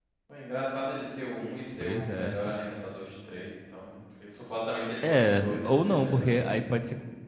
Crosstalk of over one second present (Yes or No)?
Yes